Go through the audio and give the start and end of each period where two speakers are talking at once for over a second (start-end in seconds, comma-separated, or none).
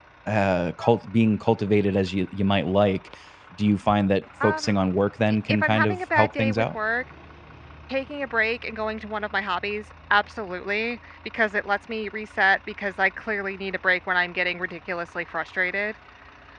5.3-6.8